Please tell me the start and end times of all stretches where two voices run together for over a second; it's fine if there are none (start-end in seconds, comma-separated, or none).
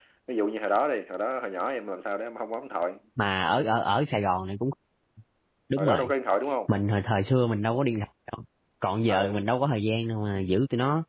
none